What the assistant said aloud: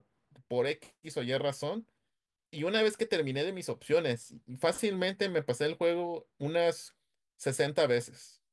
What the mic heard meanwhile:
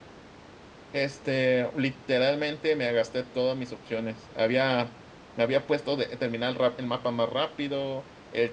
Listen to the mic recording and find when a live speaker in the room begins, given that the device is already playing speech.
0.9 s

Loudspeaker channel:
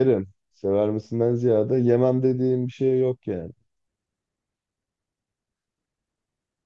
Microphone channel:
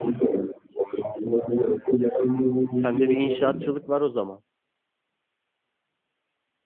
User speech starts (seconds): 2.7 s

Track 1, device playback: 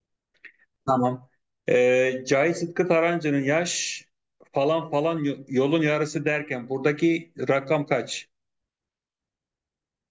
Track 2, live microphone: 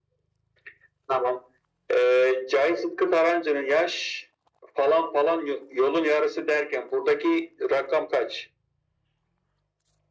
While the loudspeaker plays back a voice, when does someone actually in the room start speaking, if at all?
none

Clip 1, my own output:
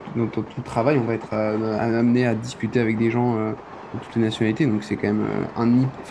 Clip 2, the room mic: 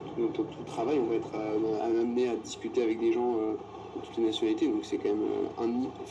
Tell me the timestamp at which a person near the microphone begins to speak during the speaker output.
none

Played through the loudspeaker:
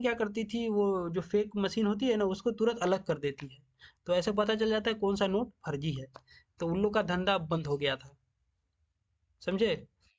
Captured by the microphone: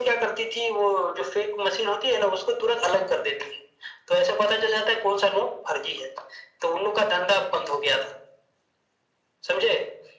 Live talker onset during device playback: none

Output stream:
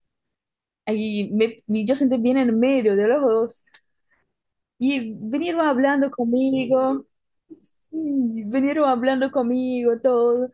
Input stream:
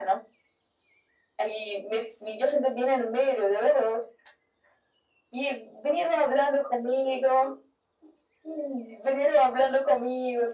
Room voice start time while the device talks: none

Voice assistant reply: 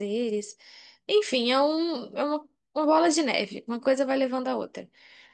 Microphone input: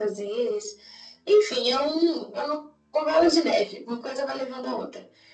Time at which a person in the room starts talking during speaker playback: none

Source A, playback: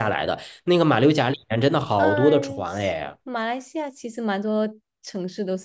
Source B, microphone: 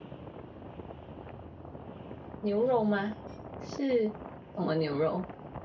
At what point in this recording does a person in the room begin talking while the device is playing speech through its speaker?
2.4 s

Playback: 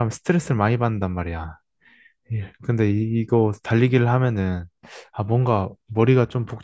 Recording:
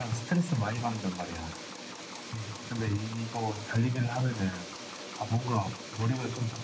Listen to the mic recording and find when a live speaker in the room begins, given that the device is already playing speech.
none

